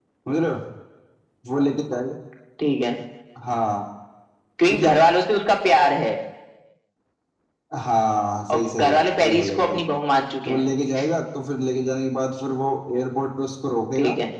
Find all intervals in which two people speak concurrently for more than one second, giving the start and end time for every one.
8.5-9.8

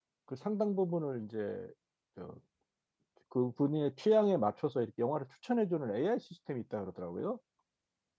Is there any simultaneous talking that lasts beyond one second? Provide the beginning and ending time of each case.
none

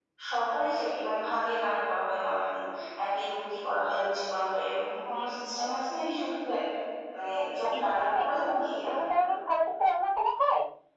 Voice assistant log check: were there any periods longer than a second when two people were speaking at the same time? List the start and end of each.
7.4-9.3

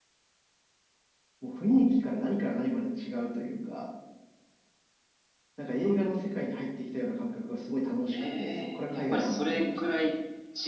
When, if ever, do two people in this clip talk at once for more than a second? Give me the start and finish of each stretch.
8.1-10.1

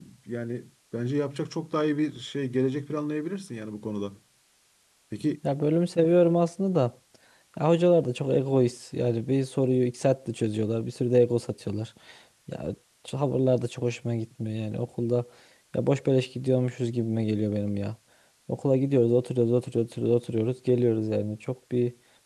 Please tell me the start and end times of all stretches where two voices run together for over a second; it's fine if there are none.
none

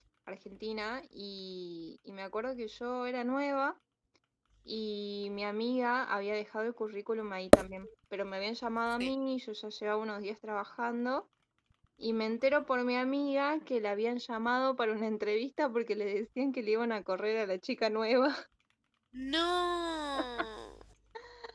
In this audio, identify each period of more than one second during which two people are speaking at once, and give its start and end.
none

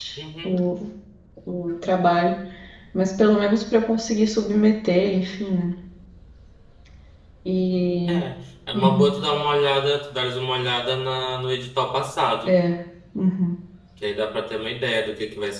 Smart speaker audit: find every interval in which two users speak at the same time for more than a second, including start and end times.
none

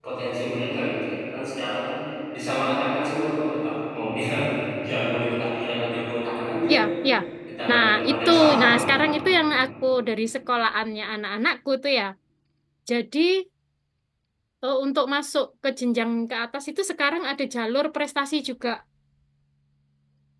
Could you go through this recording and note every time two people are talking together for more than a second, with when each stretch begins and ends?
7.7-9.1

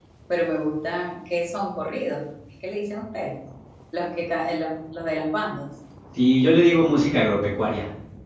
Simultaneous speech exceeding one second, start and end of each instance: none

